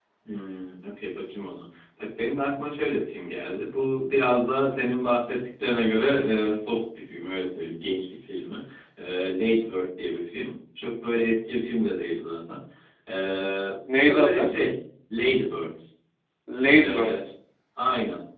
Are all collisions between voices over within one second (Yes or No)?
Yes